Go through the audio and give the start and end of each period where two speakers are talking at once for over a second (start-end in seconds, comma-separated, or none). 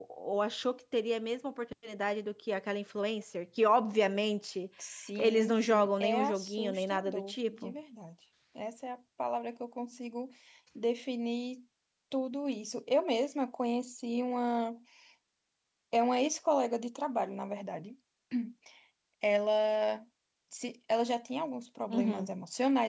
5.2-7.7